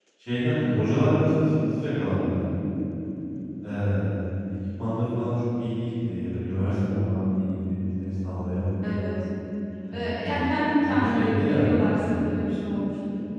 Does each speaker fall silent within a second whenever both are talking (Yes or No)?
No